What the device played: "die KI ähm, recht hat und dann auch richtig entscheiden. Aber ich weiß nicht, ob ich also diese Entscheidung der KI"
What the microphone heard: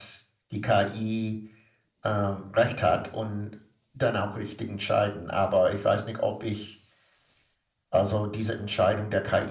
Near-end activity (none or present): none